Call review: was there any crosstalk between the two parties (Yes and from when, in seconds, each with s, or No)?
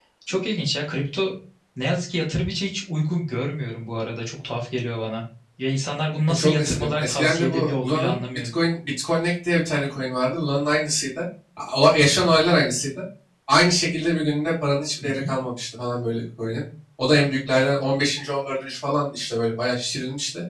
Yes, from 6.3 s